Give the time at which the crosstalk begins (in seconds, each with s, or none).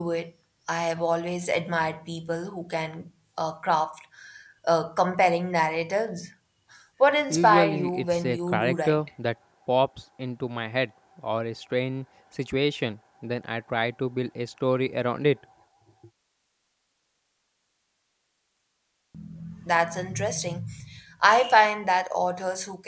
7.3 s